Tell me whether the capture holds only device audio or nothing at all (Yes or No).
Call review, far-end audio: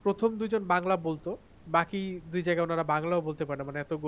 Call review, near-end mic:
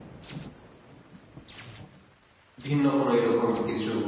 No